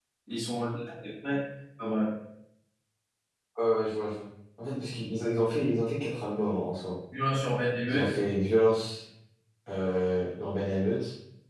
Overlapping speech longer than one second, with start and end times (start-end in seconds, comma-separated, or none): none